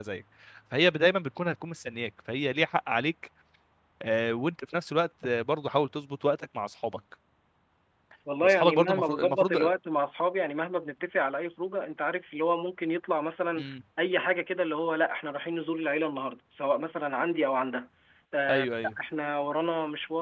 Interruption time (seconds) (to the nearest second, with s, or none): 8 s